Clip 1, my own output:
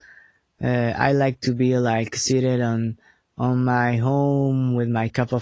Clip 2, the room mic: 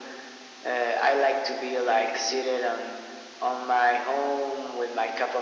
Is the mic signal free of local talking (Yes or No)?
Yes